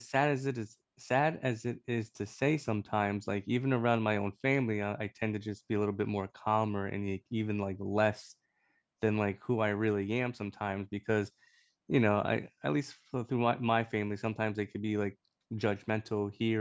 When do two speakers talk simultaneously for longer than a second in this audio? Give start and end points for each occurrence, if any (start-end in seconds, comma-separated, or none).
none